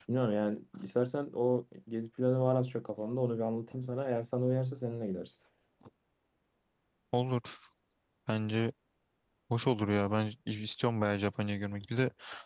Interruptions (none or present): none